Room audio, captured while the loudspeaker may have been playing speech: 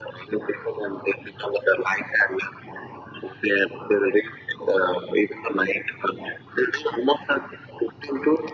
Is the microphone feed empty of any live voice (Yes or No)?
Yes